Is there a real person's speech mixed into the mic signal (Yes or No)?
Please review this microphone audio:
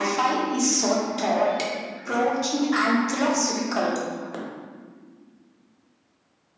No